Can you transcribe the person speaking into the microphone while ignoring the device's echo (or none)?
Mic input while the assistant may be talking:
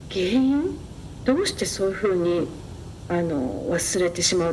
none